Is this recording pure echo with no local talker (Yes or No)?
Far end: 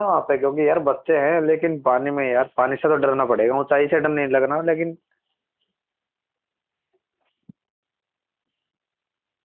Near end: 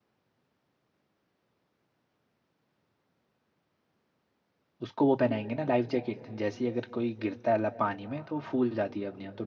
No